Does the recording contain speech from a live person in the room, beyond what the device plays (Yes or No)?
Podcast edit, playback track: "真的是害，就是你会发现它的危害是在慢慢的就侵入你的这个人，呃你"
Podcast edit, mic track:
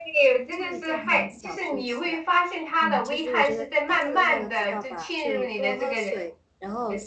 Yes